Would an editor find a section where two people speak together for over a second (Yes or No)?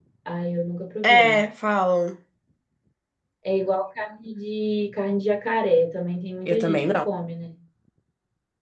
No